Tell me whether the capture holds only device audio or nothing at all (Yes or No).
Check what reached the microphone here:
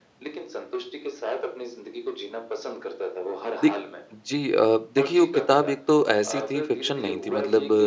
No